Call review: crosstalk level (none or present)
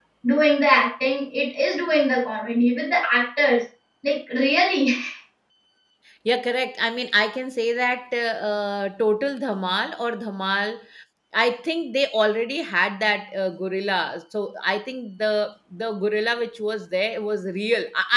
none